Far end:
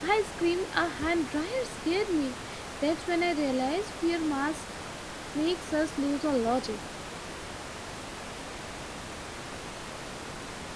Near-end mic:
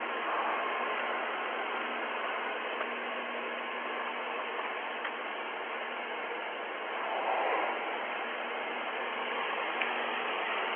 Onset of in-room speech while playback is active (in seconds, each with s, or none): none